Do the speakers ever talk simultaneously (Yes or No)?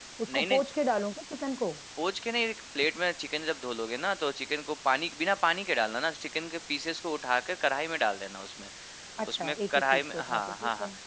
Yes